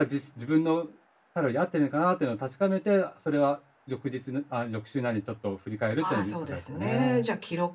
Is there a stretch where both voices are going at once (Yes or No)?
Yes